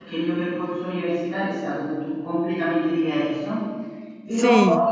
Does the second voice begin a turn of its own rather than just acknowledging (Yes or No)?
No